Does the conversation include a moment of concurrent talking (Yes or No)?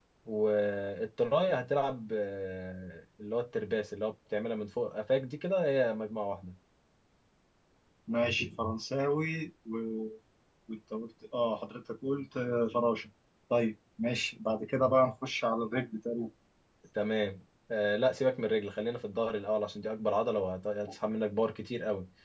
No